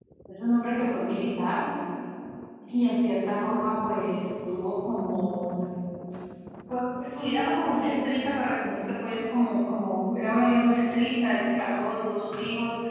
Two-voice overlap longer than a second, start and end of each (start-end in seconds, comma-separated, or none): none